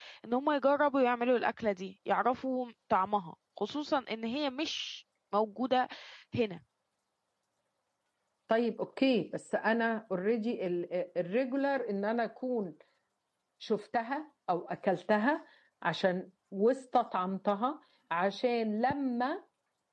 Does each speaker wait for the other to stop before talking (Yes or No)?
Yes